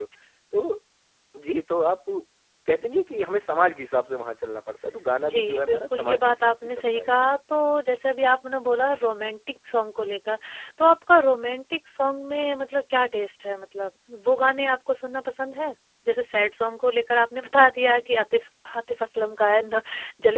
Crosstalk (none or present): present